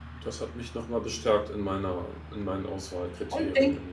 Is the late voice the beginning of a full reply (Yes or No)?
Yes